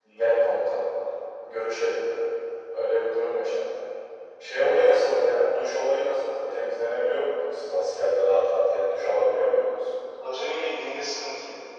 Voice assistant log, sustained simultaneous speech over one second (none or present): none